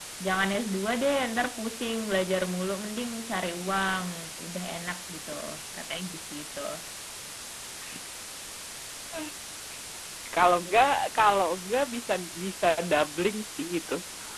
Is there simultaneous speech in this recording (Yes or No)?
No